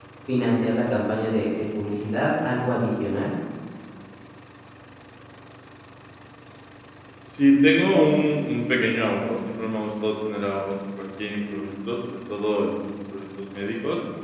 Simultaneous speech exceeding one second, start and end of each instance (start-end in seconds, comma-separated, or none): none